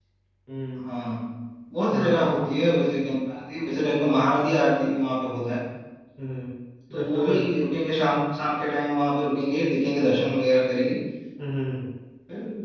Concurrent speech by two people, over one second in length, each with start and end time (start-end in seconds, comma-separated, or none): none